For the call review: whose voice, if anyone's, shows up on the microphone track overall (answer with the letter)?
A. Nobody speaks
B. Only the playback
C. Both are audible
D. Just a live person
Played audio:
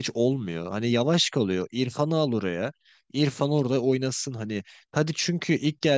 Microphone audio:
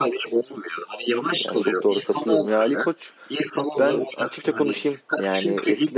C